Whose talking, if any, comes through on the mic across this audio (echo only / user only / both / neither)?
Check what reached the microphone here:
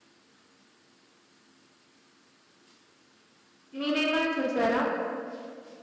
user only